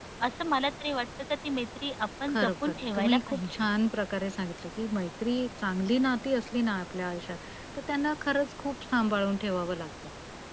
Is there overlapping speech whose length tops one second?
Yes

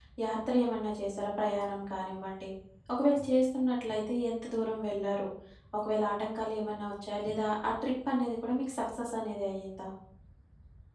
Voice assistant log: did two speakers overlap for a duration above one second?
No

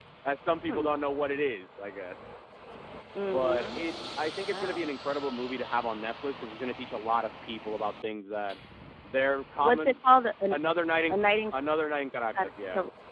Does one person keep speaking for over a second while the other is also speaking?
No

